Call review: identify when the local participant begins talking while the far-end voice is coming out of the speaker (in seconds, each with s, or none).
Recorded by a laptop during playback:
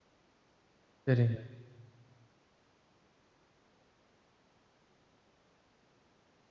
1.0 s